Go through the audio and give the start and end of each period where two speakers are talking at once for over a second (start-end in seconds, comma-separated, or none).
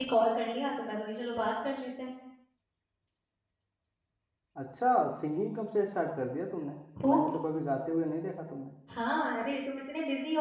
none